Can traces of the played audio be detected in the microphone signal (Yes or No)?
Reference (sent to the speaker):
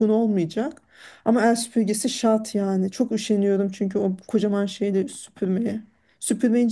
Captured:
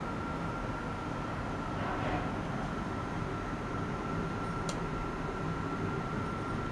No